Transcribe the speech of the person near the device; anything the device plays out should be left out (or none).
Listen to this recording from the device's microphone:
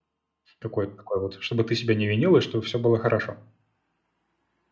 Какое-то такое вот, чтобы ты себя не винил и чтобы все было хорошо.